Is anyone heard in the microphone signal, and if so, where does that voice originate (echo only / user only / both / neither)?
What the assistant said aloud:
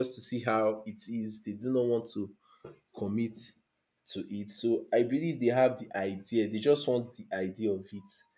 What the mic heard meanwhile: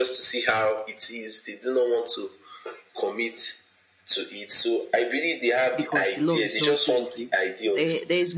both